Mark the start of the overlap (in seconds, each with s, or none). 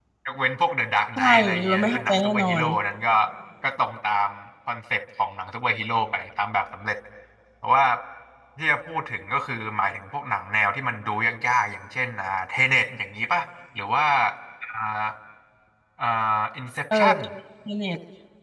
1.2 s